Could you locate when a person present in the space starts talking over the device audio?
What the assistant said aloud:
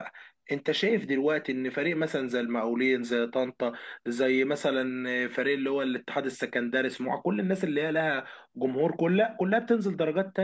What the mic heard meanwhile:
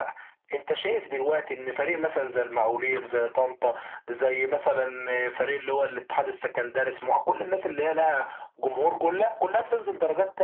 none

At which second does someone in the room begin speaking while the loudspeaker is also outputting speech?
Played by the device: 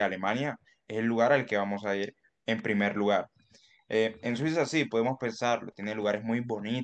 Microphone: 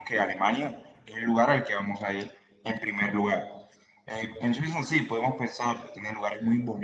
none

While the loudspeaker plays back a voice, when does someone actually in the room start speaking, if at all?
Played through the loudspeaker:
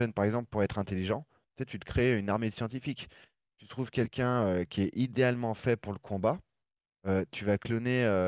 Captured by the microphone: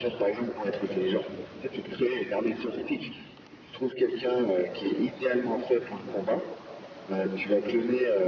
none

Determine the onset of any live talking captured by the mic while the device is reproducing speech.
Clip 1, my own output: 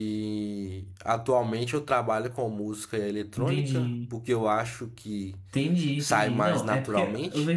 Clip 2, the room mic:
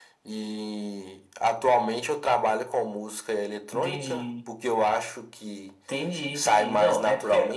none

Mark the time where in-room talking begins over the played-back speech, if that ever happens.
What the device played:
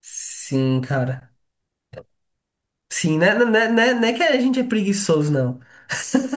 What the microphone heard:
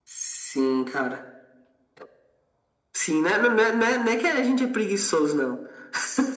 none

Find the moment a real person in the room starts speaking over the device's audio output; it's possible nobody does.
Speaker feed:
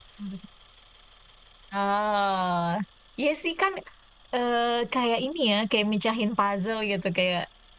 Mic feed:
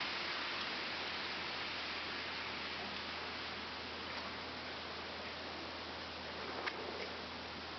none

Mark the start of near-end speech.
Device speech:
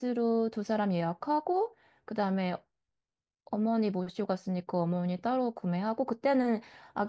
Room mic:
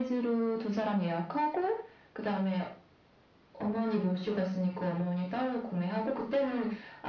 none

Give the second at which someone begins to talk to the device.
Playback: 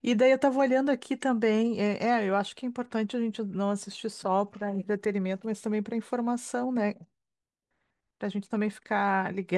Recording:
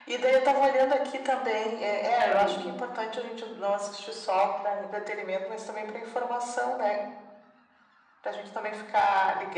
2 s

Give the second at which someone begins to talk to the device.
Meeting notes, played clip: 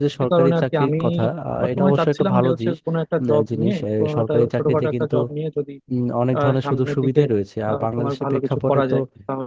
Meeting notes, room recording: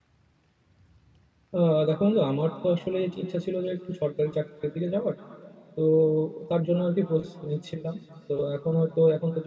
2 s

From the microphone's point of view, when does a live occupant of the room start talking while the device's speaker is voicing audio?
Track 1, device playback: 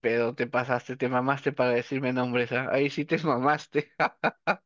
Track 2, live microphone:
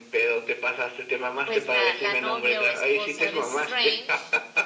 1 s

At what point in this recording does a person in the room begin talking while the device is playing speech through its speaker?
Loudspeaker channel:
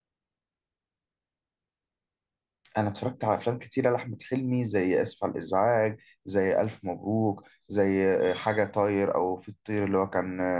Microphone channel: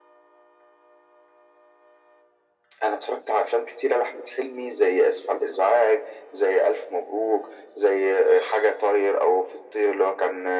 none

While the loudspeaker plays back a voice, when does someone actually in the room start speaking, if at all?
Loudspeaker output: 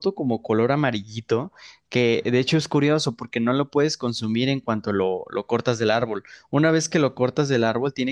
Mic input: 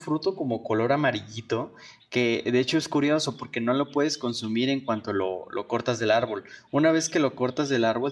none

